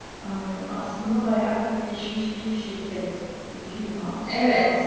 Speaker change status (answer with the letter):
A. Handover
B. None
A